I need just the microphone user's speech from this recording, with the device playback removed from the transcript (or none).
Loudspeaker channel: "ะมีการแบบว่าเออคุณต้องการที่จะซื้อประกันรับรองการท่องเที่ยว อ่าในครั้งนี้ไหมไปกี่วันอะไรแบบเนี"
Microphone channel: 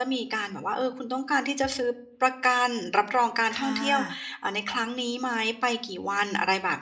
ค่ะ